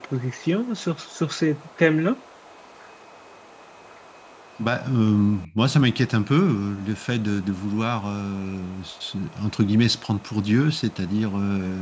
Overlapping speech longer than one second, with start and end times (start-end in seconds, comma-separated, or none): none